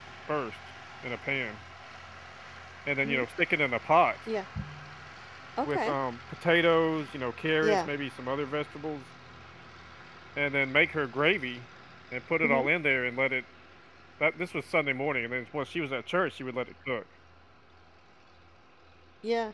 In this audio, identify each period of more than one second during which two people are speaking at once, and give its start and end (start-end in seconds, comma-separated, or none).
none